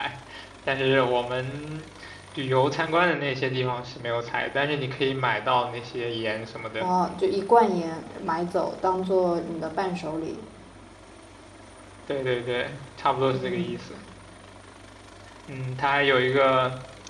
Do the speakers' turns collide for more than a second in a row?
No

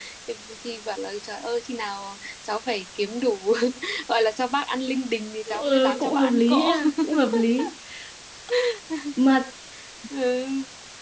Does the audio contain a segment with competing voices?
Yes, from 5.5 s

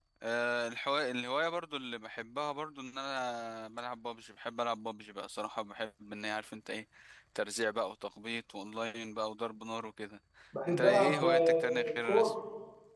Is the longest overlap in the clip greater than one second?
Yes, from 10.7 s

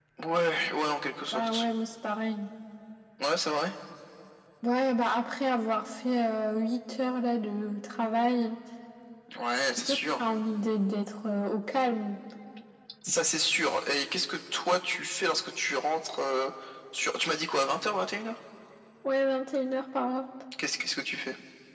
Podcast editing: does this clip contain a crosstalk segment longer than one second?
No

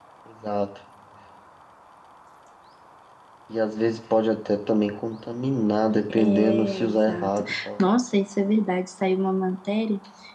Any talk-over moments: Yes, from 6.1 s

